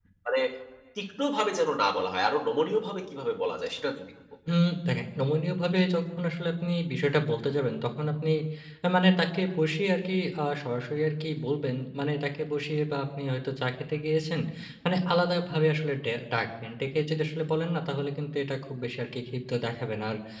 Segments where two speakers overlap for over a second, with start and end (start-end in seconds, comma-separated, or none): none